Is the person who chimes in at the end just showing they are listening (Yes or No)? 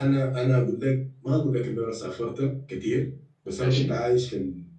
Yes